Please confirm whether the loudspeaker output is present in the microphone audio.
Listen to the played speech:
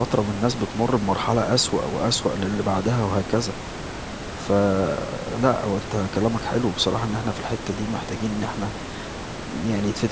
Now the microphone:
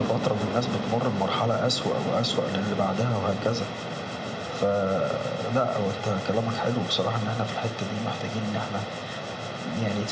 Yes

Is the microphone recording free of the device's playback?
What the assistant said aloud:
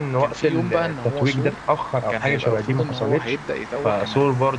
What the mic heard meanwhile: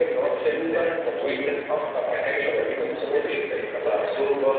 No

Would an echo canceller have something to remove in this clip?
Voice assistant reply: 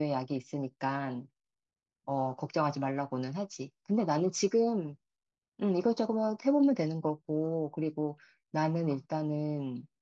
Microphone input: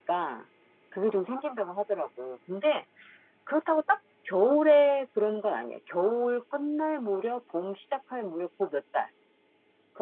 No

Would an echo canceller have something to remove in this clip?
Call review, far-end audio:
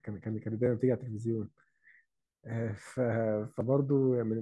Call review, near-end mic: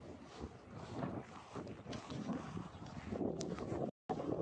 No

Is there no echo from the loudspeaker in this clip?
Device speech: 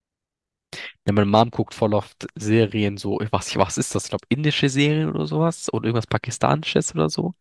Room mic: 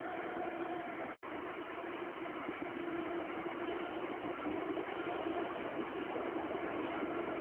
Yes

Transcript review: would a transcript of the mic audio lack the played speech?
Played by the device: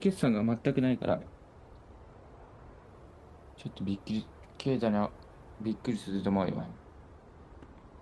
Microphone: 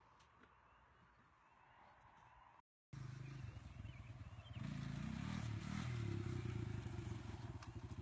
Yes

